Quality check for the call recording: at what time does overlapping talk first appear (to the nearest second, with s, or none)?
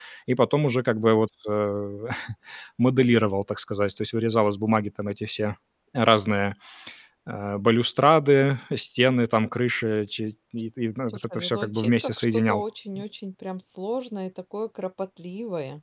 11 s